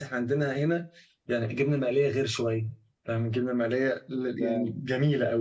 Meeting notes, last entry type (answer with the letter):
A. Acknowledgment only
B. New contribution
A